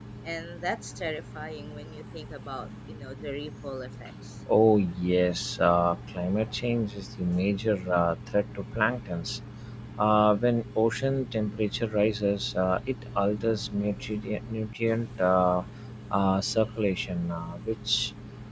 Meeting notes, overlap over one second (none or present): none